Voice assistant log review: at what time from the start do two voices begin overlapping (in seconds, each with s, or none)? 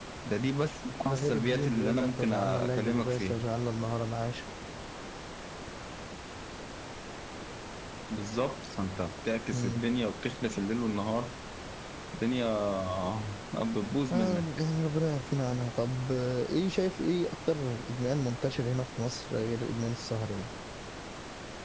1.0 s